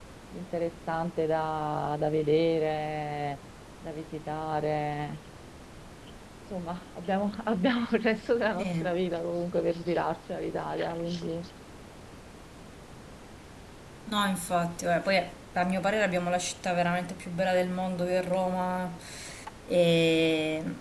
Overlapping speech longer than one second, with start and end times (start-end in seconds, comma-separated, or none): none